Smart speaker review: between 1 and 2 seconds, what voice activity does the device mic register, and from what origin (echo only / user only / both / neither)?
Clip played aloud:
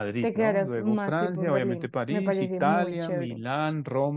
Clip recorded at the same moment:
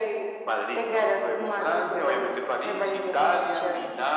echo only